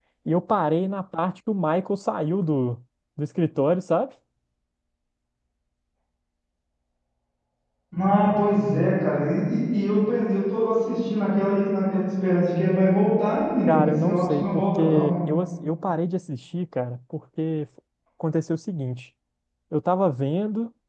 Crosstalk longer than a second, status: present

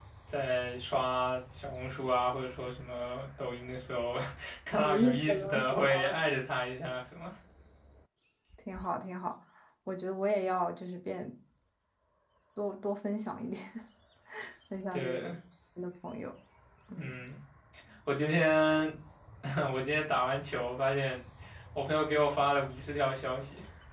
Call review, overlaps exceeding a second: present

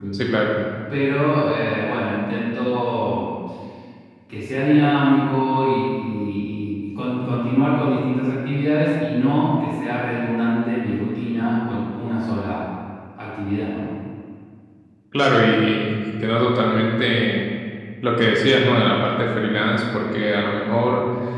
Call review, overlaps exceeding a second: none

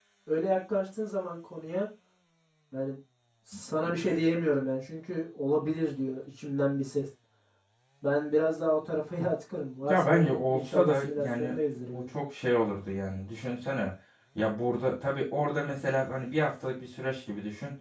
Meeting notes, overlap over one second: present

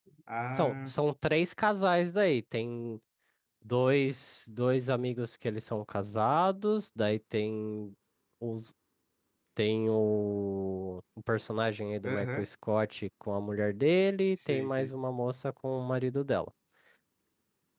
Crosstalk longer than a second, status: none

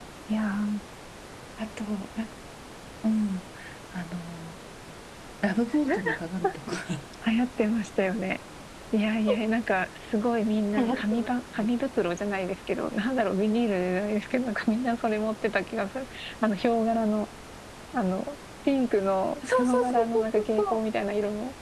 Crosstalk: present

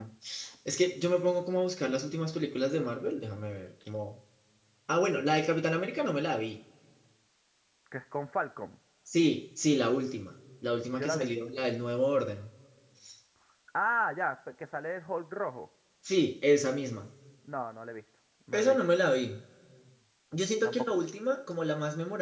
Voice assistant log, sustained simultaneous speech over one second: none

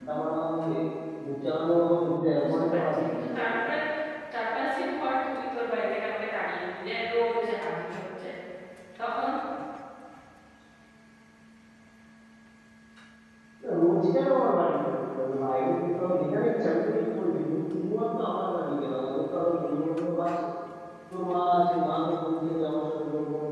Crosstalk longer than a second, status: present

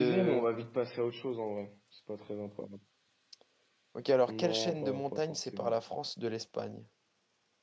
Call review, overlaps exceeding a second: present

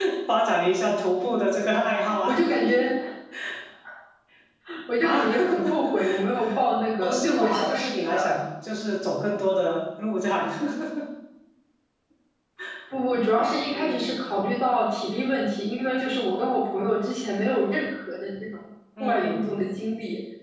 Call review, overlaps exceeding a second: present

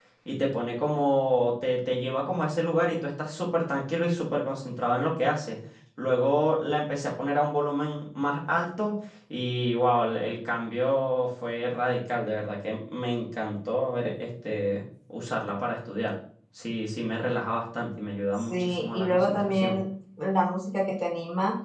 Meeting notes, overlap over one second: present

